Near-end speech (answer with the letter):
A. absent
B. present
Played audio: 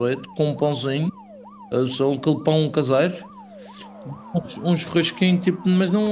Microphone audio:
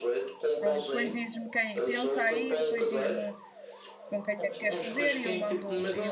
B